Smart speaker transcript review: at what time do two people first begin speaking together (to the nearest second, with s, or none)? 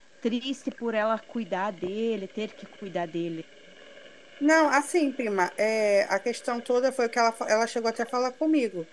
none